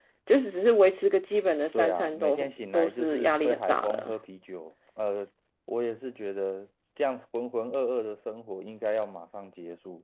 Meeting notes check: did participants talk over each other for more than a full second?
Yes, from 1.7 s

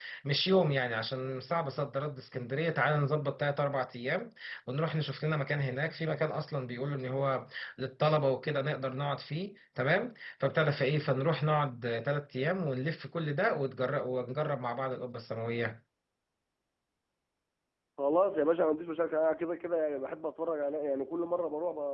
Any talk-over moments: No

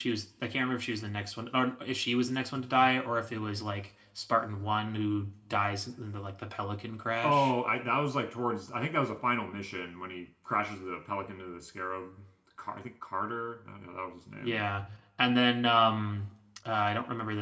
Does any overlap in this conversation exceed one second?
No

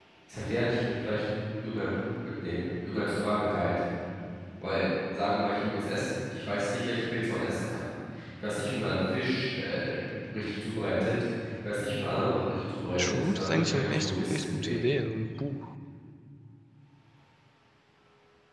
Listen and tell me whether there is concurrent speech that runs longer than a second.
Yes, from 13.0 s

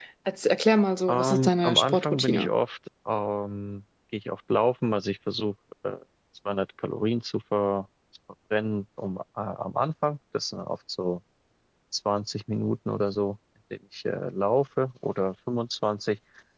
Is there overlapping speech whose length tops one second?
Yes, from 1.1 s

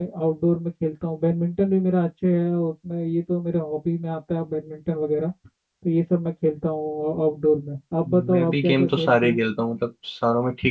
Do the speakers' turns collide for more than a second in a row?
Yes, from 8.0 s

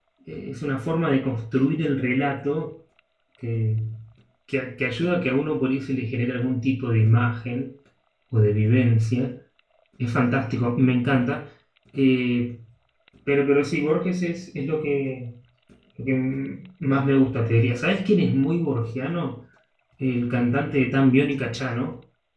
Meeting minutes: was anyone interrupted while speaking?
No

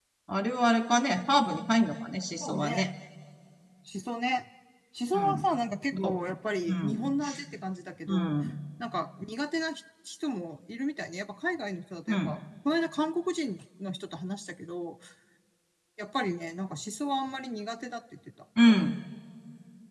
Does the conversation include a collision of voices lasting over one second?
No

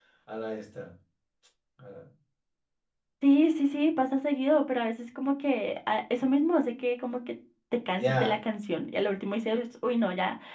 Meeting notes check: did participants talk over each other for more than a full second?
No

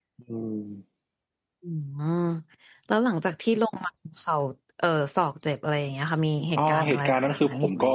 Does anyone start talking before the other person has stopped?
Yes, from 6.6 s

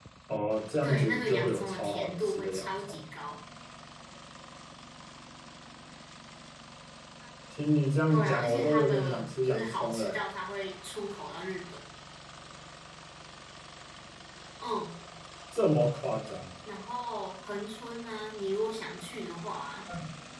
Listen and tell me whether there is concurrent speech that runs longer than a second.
Yes, from 0.8 s

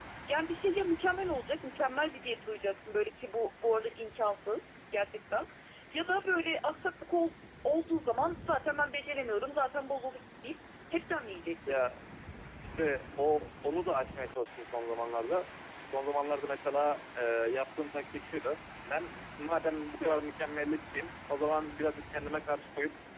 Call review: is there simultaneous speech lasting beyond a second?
No

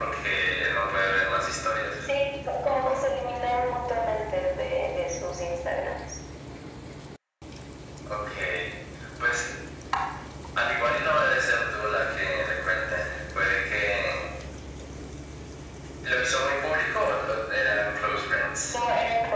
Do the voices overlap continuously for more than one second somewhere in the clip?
No

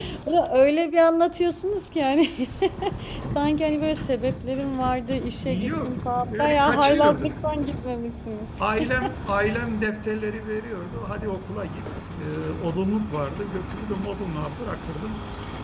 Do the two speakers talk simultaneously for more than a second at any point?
Yes, from 5.7 s

